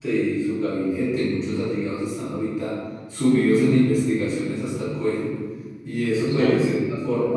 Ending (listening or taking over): listening